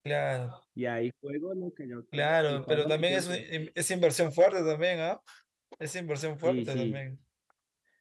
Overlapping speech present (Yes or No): Yes